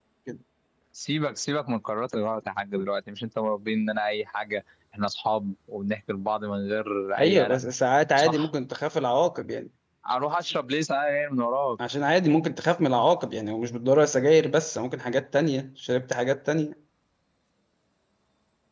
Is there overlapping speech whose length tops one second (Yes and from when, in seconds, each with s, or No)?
No